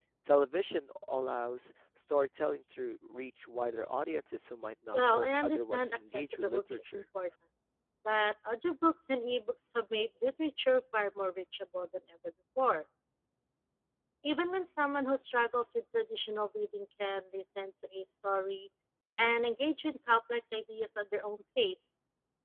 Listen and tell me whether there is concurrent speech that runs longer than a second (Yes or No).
Yes